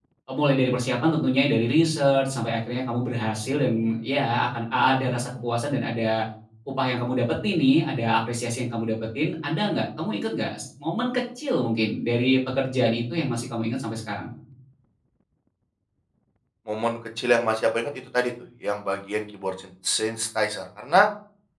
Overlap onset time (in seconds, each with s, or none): none